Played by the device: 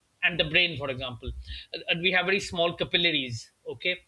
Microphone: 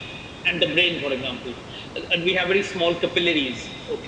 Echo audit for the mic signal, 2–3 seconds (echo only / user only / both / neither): echo only